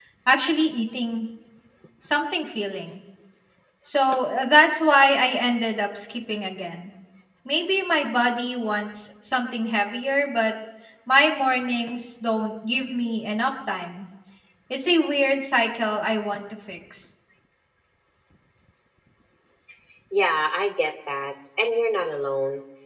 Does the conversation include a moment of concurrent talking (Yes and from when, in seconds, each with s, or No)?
No